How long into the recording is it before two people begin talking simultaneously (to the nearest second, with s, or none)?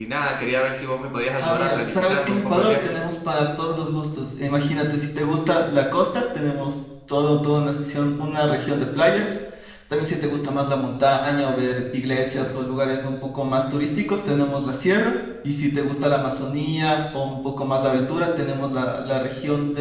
1 s